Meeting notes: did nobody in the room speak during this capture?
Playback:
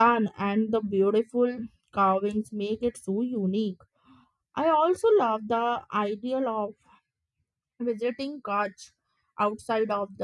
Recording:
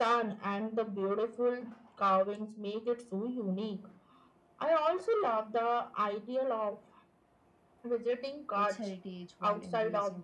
No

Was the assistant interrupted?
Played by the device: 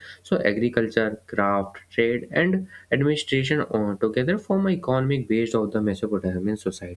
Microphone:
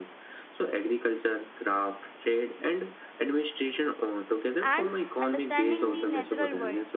Yes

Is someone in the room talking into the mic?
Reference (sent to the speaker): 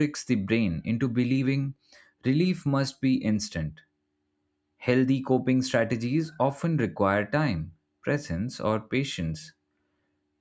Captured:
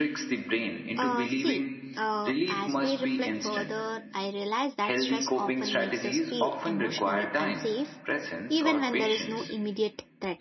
Yes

